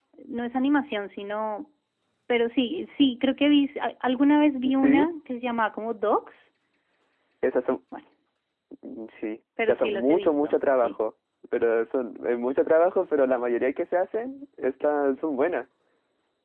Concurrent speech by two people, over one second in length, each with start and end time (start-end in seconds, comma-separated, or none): 9.7-10.9